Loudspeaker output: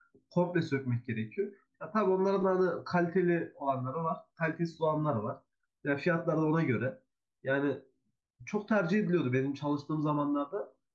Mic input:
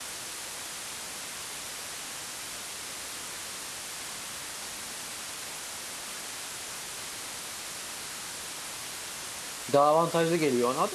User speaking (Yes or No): Yes